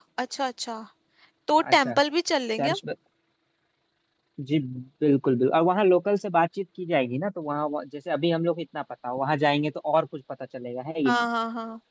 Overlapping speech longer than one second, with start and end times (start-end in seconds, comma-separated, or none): none